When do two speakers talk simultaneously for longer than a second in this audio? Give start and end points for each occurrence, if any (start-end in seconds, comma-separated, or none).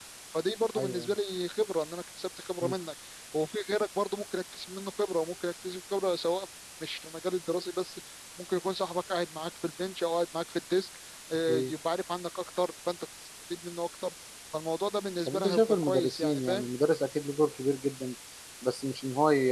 15.3-16.7